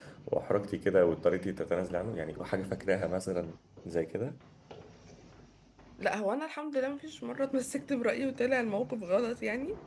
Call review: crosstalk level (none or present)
none